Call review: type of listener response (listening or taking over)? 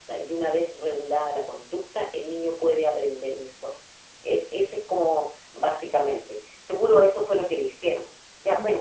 taking over